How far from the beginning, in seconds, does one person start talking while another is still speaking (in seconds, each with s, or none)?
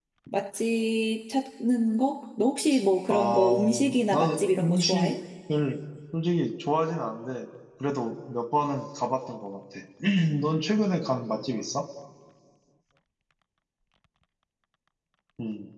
3.1 s